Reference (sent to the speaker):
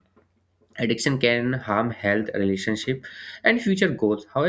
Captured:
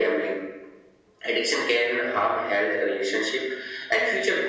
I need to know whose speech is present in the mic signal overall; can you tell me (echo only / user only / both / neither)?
echo only